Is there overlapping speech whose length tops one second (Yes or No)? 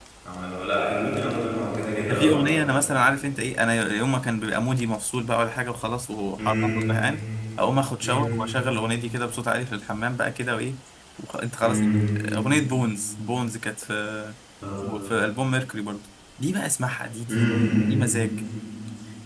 No